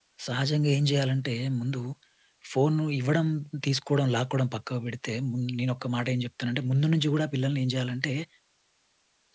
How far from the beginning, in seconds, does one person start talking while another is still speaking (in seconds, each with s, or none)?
none